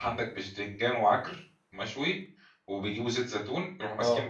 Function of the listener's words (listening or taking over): listening